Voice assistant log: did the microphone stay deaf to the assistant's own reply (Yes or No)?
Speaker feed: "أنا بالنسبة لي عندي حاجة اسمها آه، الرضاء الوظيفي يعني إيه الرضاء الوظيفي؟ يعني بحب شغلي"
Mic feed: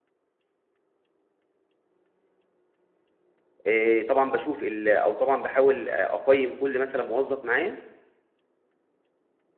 Yes